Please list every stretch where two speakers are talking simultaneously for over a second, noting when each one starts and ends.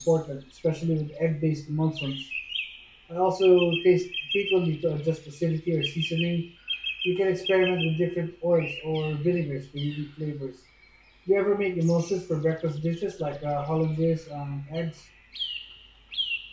none

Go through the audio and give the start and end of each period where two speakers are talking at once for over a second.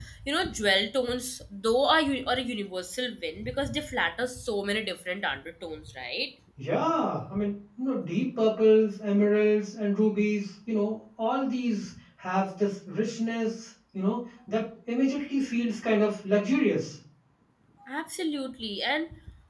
none

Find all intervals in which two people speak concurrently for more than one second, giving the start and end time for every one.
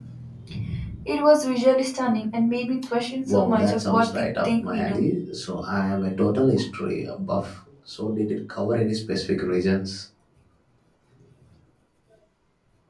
3.3-5.0

